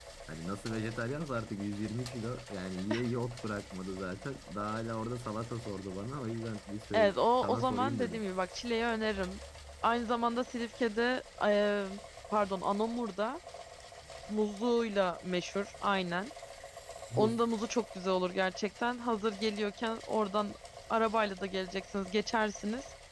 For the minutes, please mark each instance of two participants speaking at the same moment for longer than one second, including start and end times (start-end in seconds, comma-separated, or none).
6.9-8.2